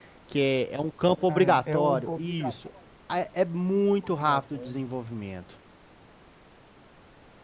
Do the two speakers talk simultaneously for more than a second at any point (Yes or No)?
Yes